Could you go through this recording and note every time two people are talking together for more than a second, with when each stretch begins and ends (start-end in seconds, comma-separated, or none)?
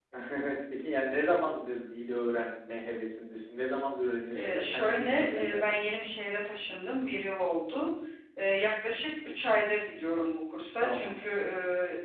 4.3-5.8